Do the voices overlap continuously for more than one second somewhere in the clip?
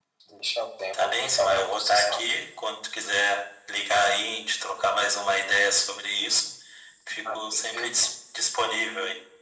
Yes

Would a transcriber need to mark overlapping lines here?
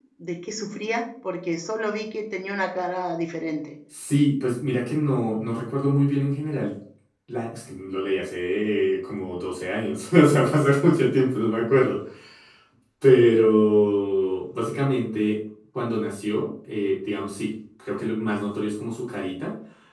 No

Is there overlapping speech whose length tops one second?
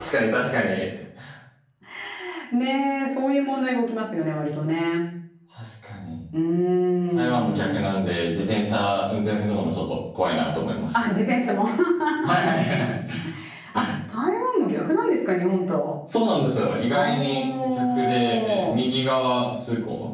Yes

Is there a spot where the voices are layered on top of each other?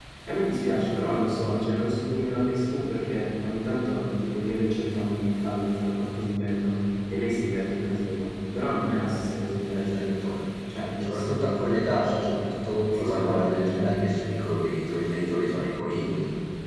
Yes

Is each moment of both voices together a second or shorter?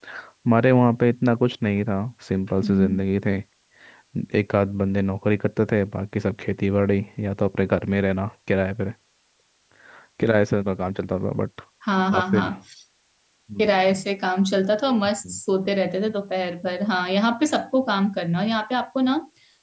Yes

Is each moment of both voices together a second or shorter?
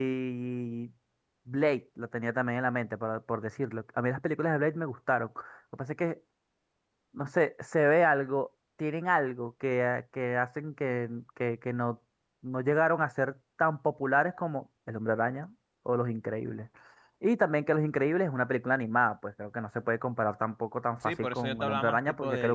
No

